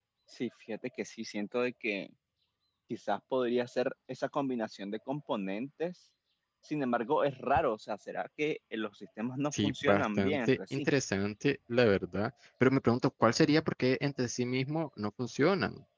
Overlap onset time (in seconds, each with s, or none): 9.5 s